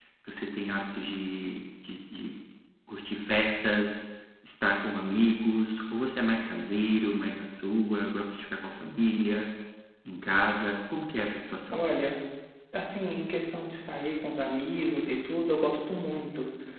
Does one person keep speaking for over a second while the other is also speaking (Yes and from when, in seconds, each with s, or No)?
No